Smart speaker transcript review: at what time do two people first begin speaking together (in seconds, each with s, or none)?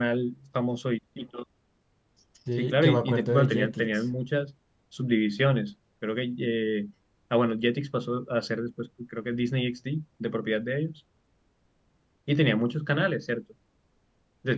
2.6 s